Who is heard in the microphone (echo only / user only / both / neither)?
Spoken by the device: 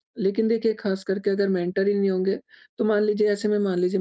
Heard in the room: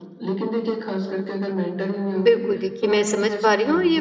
both